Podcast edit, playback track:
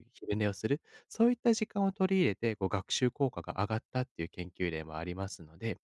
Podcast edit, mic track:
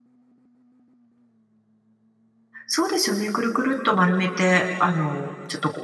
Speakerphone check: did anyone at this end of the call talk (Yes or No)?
Yes